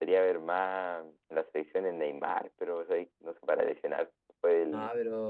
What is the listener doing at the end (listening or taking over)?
listening